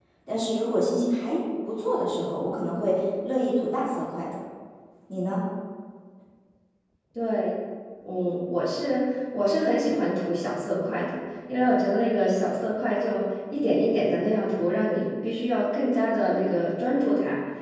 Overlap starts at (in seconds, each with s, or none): none